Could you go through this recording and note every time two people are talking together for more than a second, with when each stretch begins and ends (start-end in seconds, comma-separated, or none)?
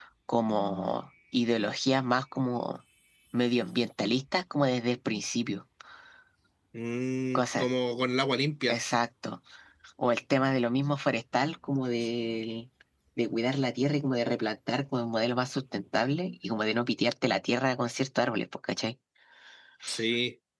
none